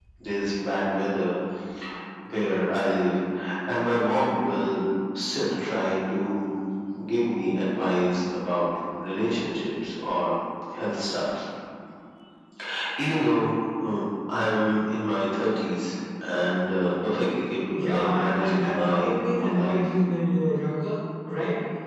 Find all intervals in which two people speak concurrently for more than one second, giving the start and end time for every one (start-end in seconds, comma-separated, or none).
17.8-19.9